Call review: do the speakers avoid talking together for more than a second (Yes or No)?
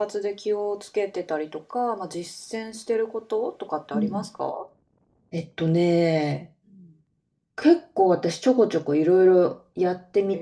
Yes